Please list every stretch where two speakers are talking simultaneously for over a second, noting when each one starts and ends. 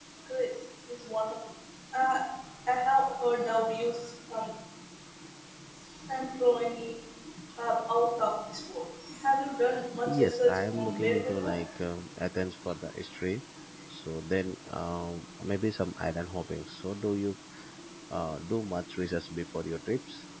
10.1-11.5

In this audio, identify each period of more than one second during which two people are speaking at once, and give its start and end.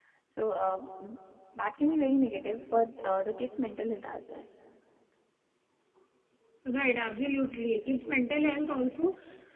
none

